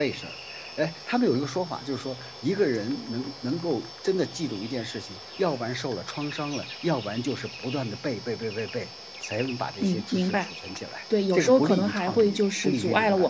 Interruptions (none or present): present